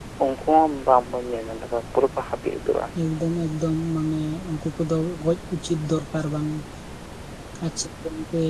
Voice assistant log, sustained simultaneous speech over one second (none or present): none